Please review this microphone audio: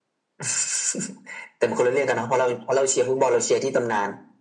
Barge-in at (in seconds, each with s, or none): none